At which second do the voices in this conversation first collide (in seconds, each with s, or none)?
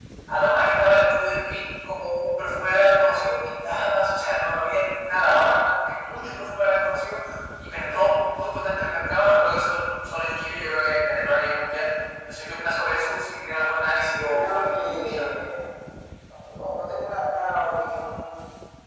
14.0 s